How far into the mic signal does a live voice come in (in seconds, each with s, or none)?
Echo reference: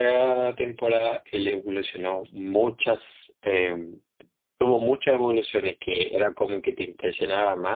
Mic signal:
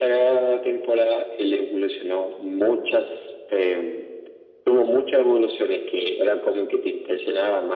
none